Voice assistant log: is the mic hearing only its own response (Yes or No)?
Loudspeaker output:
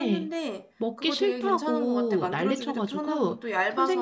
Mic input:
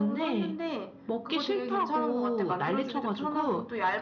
Yes